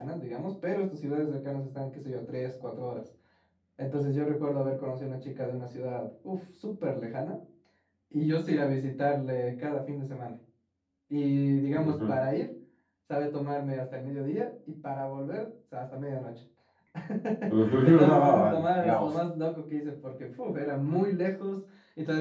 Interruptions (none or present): present